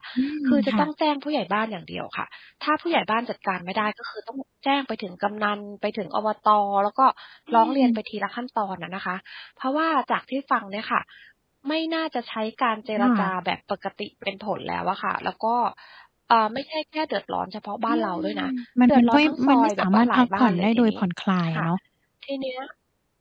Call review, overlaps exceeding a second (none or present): present